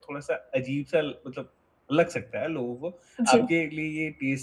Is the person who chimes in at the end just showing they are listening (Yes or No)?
Yes